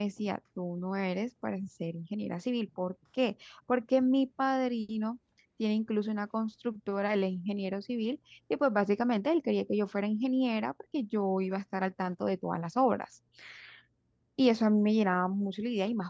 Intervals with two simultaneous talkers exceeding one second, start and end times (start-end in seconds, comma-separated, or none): none